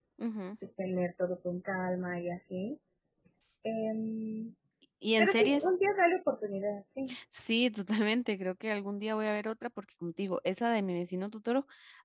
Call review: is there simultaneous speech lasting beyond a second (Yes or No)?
No